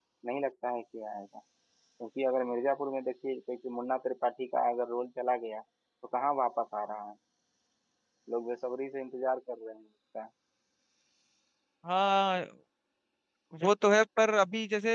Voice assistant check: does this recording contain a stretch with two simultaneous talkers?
No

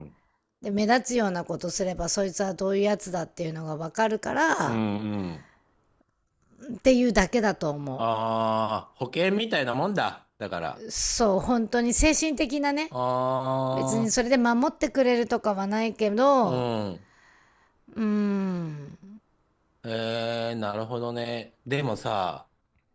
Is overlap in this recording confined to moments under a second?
Yes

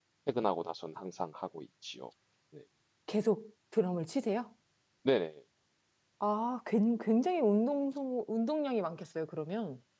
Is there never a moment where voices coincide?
Yes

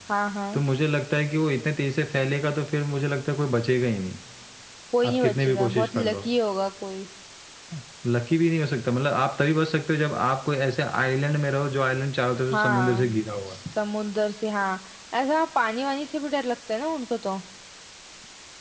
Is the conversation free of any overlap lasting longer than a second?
No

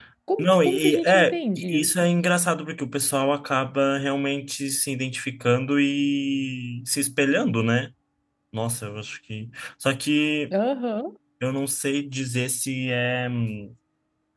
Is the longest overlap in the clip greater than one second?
Yes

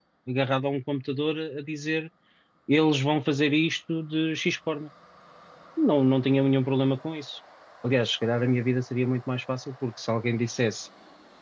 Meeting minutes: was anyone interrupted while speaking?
No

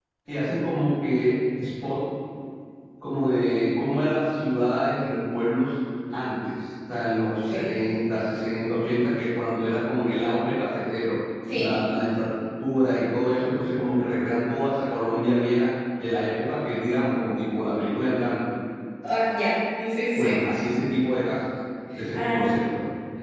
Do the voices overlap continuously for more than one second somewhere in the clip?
No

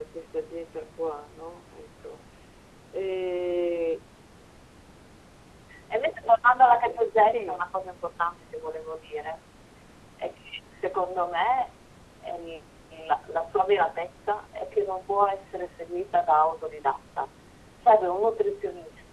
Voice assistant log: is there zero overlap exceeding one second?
Yes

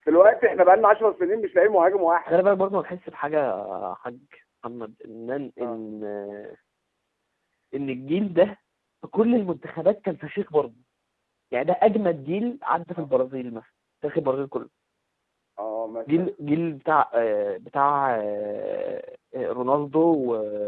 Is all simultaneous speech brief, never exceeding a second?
Yes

